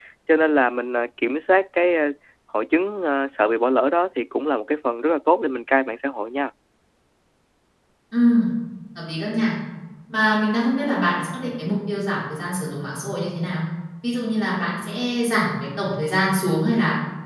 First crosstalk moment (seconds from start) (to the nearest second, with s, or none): none